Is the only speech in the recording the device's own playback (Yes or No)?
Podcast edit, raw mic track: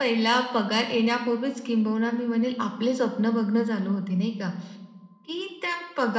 Yes